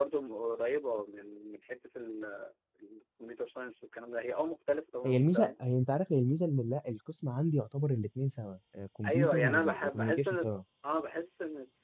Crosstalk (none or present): present